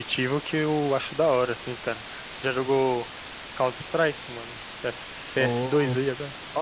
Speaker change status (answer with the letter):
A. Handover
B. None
A